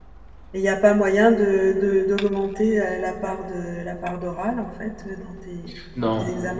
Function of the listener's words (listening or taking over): taking over